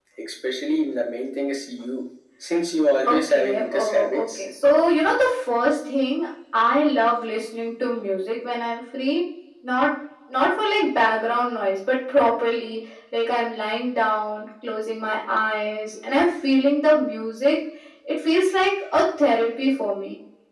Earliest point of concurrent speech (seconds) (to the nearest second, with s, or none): 3 s